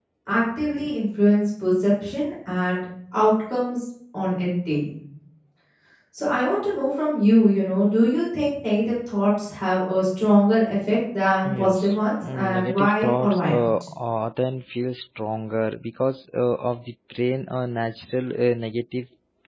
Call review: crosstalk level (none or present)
present